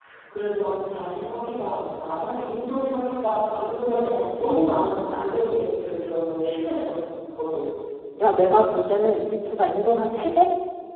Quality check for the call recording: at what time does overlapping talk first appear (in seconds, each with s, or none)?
none